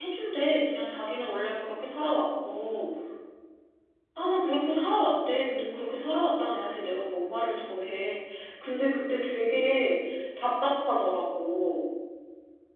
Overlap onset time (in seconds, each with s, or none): none